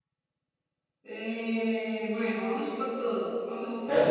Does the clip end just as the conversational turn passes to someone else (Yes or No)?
Yes